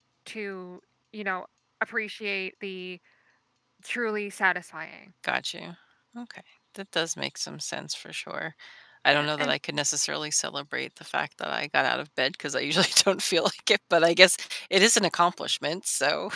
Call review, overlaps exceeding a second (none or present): none